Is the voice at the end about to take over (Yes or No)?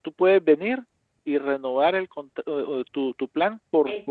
No